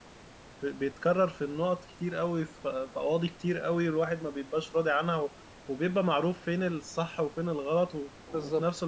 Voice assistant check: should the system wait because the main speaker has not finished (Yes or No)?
Yes